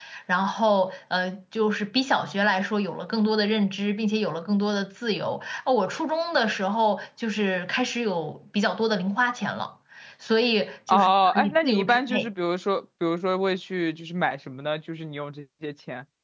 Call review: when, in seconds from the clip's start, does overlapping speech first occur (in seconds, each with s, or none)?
10.9 s